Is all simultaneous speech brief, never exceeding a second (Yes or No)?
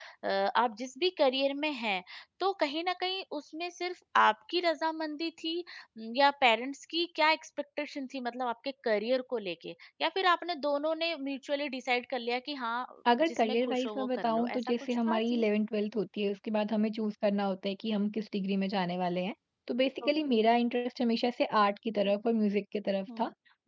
No